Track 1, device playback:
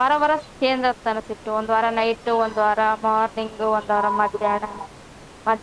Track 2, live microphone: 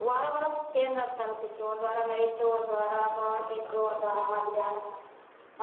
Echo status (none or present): present